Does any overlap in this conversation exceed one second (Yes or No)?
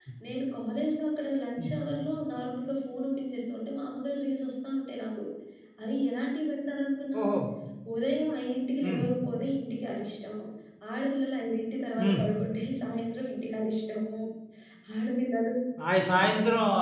No